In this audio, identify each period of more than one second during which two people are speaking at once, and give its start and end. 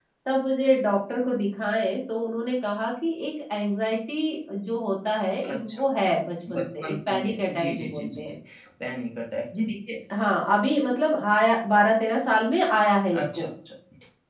6.5-8.3

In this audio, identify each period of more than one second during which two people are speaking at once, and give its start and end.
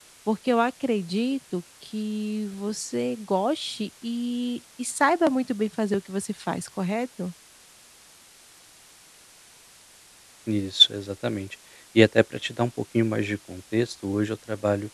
none

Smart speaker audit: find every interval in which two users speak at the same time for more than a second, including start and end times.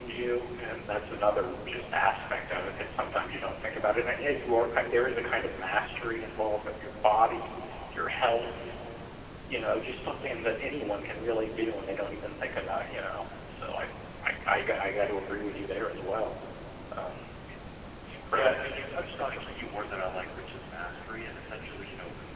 none

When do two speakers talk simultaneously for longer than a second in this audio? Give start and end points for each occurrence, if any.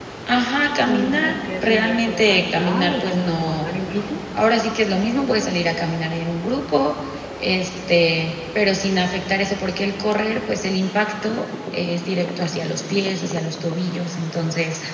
0.8-3.7

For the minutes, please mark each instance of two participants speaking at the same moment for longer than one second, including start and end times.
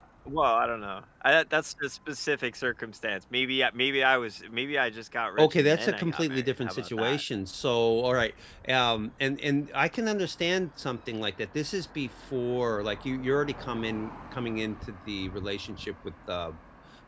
5.4-7.2

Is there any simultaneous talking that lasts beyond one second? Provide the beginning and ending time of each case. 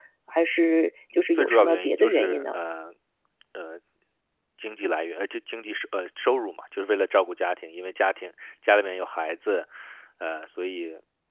1.3-2.6

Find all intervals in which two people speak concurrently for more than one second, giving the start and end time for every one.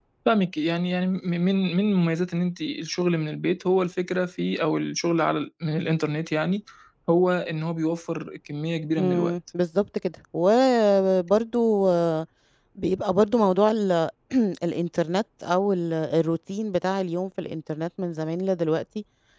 none

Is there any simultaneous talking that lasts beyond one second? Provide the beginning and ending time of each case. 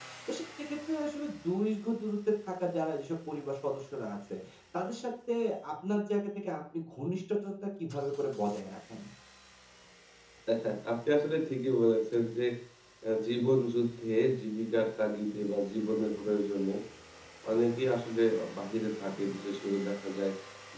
none

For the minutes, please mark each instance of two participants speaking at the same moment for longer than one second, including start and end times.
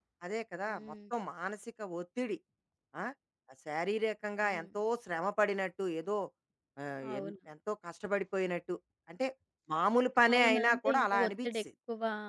10.3-11.6

